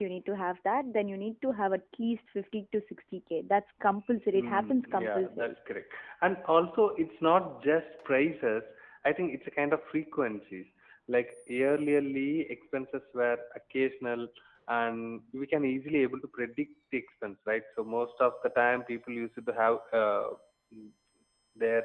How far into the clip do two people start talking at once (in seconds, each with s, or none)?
4.3 s